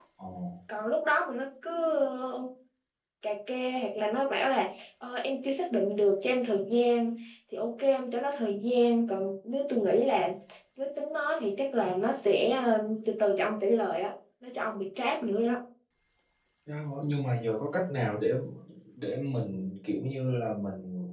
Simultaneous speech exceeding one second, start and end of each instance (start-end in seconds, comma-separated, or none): none